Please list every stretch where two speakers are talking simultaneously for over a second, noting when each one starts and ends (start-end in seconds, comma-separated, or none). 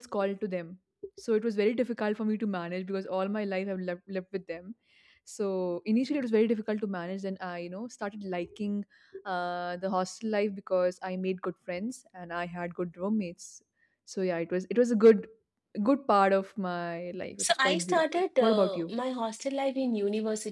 17.4-18.9